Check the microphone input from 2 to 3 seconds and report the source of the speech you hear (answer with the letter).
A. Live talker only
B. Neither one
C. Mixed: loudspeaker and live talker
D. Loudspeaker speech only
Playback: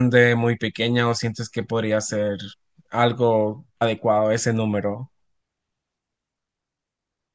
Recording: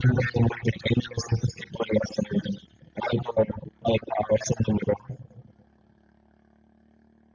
D